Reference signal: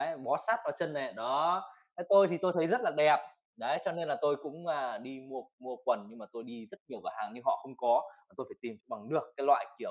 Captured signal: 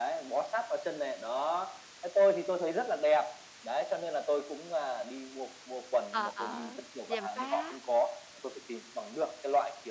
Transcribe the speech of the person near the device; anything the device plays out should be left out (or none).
ờ, ờ, gièm pha,